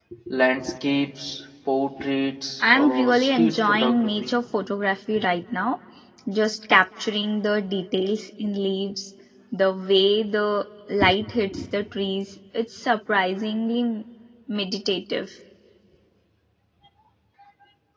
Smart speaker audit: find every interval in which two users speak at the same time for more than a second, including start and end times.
2.8-4.3

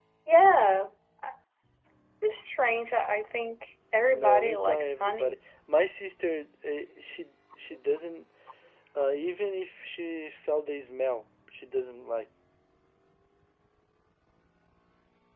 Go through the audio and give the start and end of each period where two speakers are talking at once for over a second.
4.1-5.4

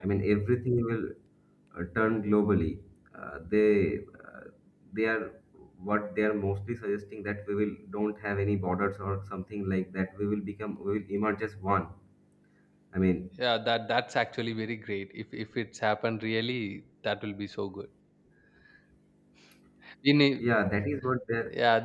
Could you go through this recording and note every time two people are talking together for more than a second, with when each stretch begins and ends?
none

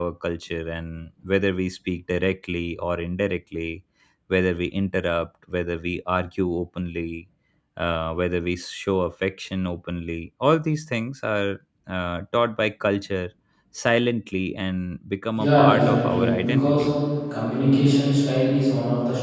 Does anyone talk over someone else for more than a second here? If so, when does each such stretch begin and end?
15.3-16.9

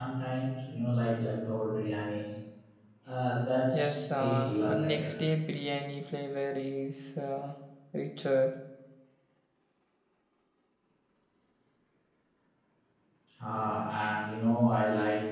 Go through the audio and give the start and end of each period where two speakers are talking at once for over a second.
3.7-5.2

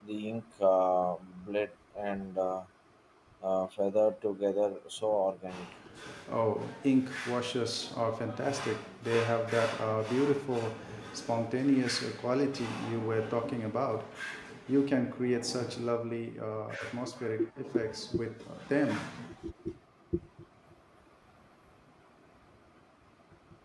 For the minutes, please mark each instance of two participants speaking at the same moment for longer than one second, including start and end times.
none

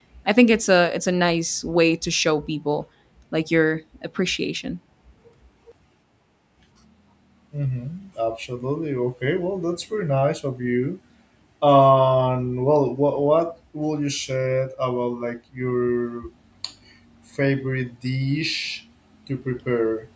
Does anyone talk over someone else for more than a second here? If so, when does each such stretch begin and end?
none

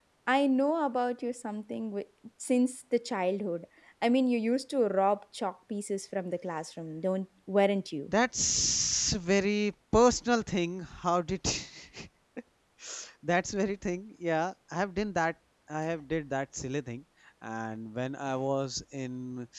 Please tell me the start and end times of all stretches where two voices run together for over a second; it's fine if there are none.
none

